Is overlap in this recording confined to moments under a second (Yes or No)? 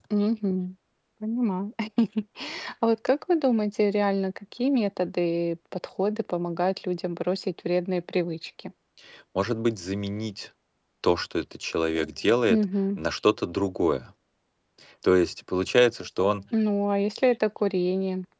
Yes